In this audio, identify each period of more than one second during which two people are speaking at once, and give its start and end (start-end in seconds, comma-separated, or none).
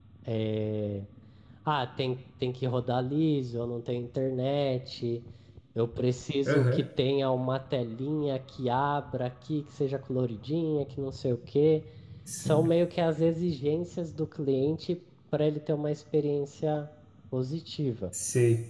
none